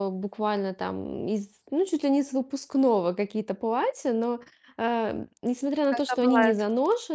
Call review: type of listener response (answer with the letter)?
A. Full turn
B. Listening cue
B